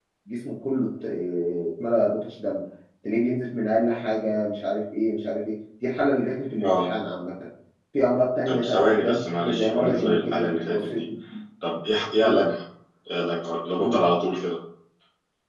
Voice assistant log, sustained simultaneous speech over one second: present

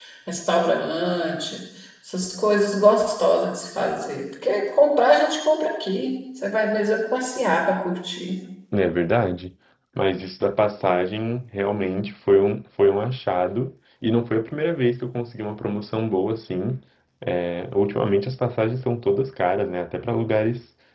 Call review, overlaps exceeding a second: none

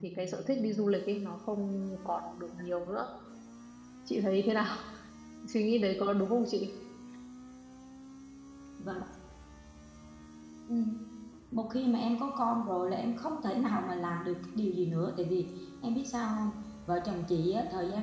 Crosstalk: none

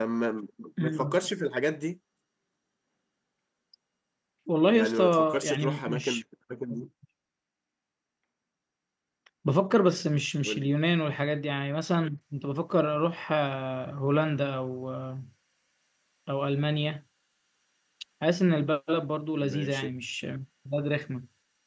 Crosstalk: present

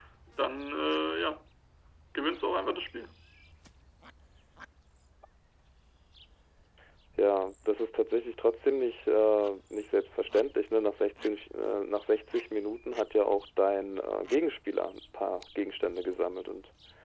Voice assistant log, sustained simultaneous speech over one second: none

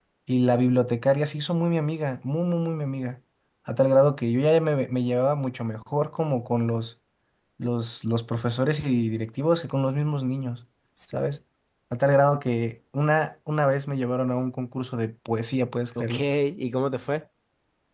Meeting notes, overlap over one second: none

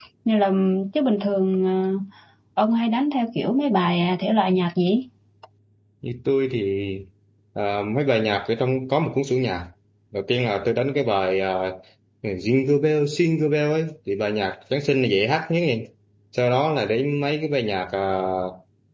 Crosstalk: none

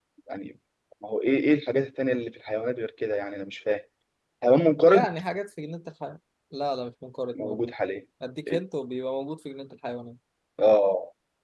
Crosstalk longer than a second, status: none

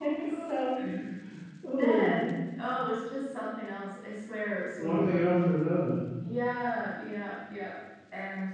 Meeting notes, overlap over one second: none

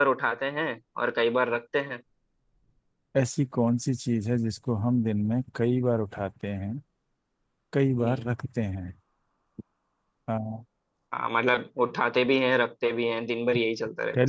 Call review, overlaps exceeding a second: none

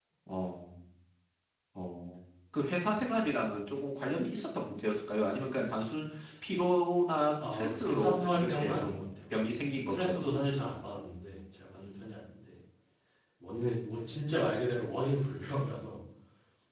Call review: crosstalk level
present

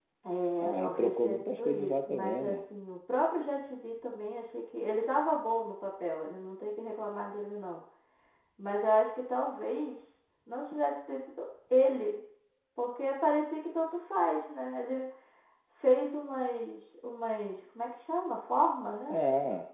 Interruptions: present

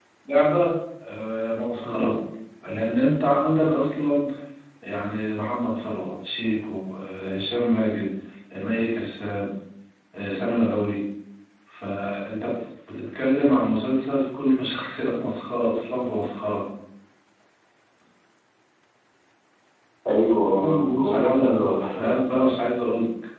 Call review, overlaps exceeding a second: present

